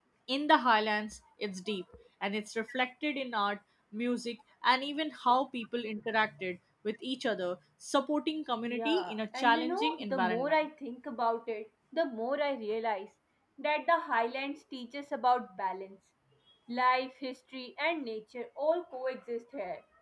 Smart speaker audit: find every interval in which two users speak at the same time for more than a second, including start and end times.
8.7-10.6

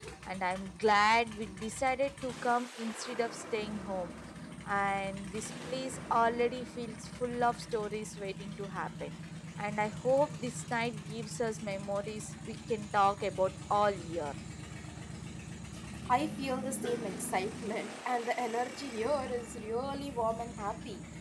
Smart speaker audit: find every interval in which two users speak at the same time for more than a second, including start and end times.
none

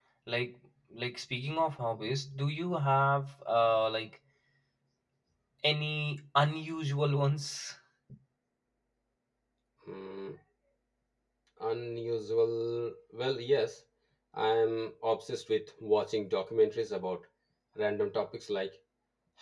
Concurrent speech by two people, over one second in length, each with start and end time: none

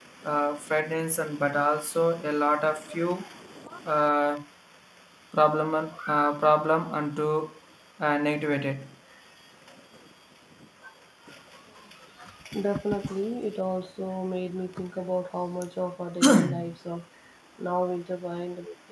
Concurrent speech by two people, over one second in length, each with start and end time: none

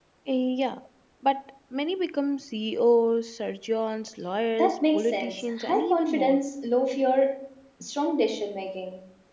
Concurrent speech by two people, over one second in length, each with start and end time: 4.6-6.4

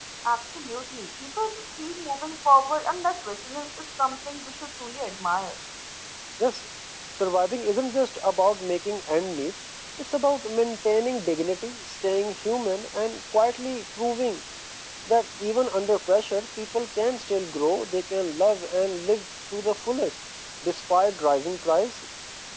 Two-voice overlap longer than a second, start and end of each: none

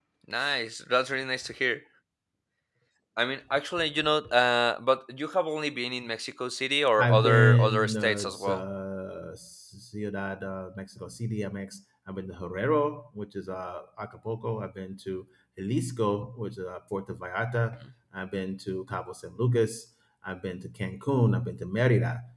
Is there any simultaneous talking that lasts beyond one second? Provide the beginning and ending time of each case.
7.0-8.6

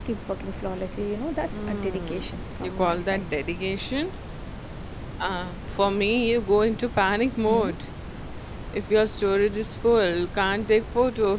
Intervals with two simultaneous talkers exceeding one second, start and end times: 1.5-3.2

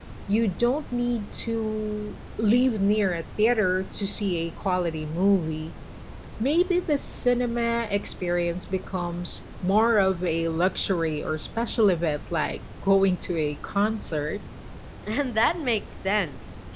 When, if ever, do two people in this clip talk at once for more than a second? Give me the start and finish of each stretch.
none

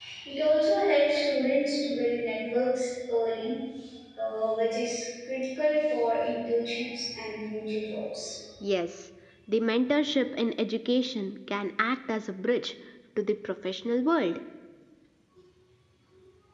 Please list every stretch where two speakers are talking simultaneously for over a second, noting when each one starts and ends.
none

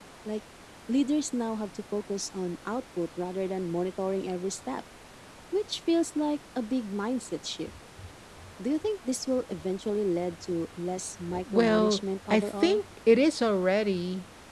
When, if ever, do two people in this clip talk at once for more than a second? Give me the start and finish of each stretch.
11.5-12.8

